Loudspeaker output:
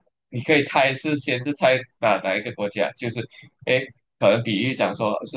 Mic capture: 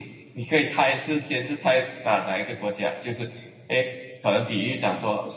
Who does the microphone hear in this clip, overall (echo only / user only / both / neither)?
echo only